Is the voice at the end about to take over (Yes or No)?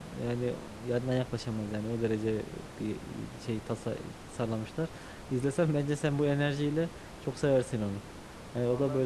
Yes